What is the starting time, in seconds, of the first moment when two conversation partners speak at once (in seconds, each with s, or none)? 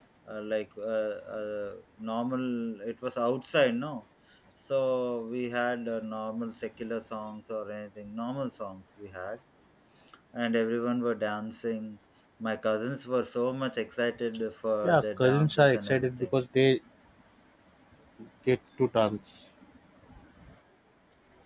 14.8 s